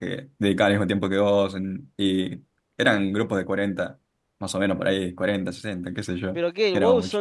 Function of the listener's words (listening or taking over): taking over